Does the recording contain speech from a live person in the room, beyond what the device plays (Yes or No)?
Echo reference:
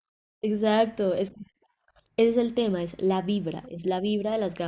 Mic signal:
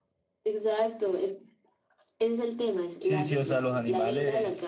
Yes